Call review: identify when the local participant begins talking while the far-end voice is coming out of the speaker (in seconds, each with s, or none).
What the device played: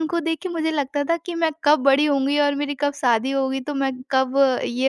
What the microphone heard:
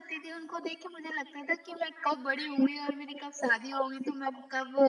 none